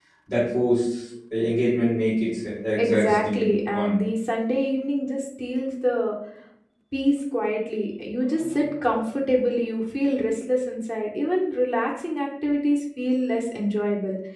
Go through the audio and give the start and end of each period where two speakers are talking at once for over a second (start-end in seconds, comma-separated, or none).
2.8-4.0